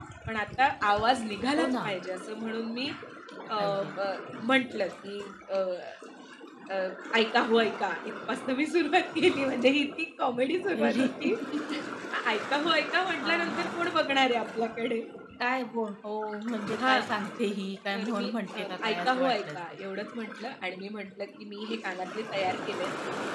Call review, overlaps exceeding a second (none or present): present